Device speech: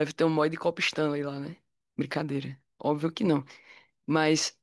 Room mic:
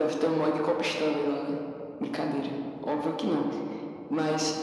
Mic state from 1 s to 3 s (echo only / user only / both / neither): echo only